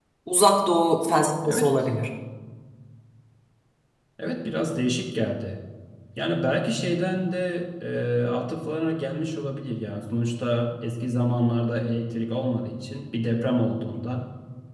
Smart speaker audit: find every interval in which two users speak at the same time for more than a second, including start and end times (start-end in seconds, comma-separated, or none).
none